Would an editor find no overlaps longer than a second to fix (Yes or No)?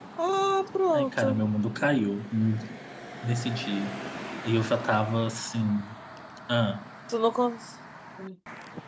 Yes